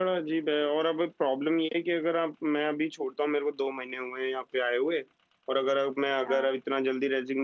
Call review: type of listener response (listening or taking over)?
listening